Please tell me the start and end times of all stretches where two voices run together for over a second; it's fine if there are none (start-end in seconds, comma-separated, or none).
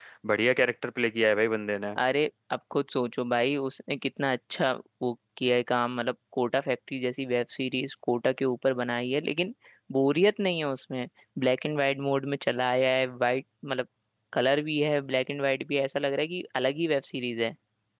none